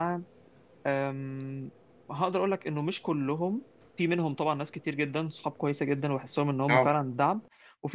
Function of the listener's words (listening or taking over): listening